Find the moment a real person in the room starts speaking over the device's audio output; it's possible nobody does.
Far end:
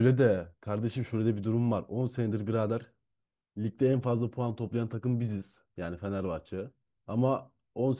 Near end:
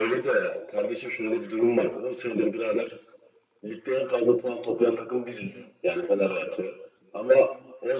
none

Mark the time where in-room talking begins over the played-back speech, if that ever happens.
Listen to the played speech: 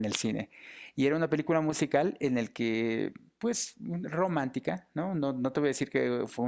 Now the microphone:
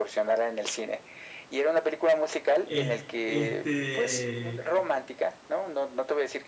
2.6 s

